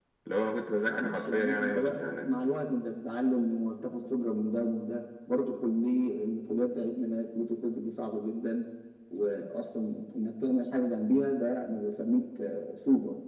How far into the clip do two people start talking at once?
0.8 s

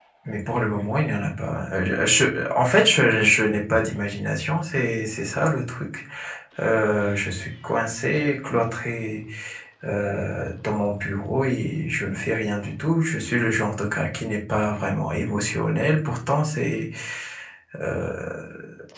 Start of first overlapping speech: none

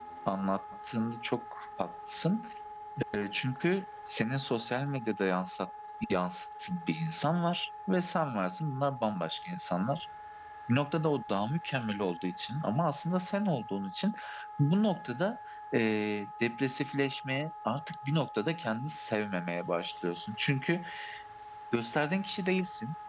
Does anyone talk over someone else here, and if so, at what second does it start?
none

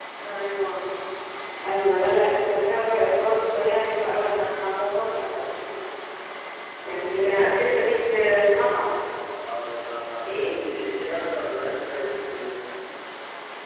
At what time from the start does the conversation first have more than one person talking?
7.0 s

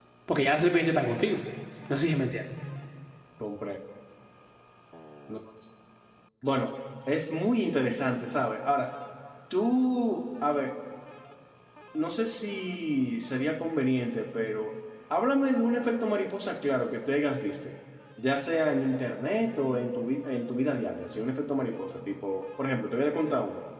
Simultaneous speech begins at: none

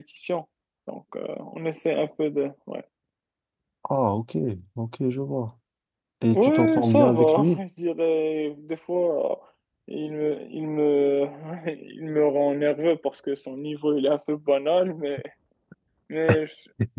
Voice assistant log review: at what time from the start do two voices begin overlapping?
6.3 s

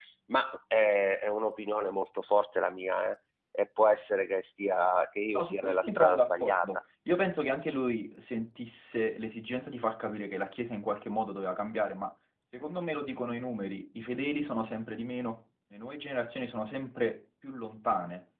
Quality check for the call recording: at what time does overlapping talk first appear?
5.3 s

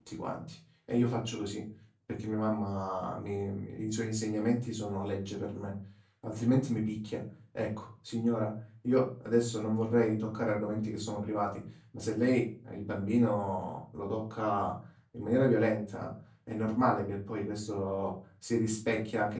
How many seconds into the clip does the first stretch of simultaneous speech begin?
none

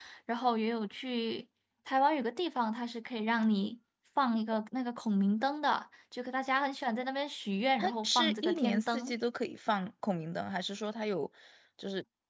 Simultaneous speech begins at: 7.8 s

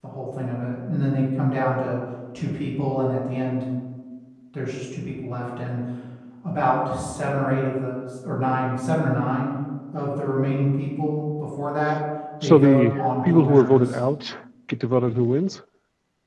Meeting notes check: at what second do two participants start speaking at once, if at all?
12.4 s

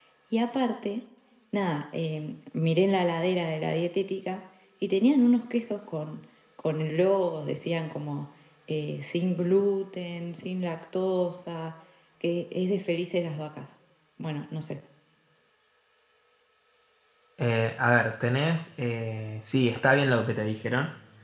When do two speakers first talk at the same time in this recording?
none

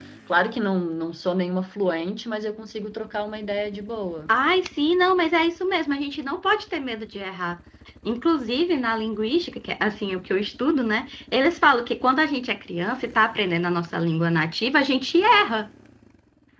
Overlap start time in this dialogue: none

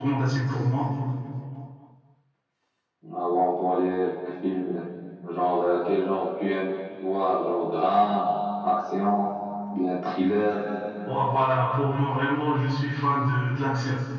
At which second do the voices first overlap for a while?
none

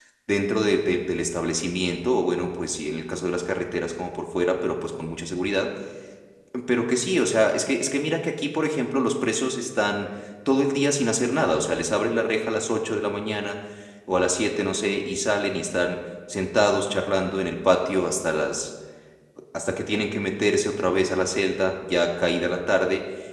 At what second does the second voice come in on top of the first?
none

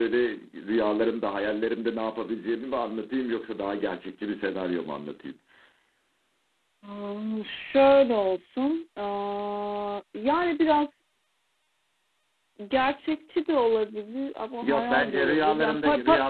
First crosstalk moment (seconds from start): 14.6 s

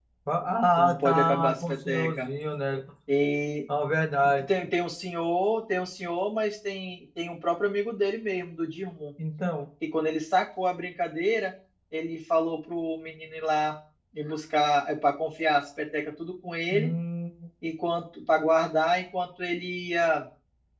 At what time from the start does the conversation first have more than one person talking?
0.8 s

